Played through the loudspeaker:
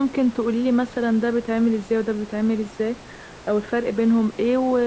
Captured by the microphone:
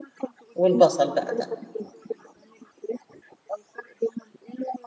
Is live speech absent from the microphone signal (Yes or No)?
No